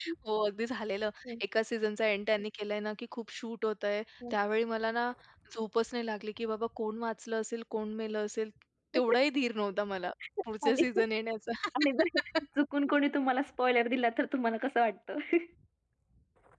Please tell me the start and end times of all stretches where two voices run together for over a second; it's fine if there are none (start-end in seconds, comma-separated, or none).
none